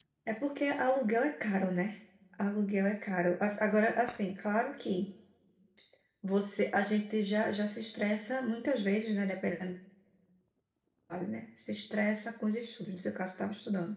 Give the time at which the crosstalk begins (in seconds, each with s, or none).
none